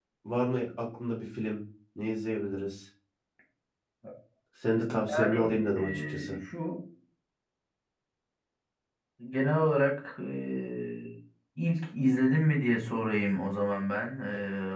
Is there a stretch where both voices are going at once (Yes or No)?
Yes